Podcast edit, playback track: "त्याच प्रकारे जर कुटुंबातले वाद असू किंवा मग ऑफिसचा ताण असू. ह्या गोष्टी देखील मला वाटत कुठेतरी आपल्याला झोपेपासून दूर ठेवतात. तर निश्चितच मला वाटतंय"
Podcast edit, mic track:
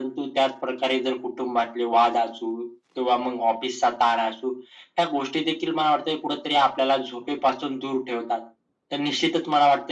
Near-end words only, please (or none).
none